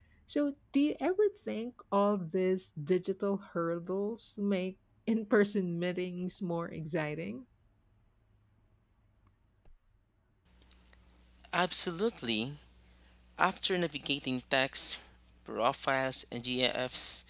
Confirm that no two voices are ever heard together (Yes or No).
Yes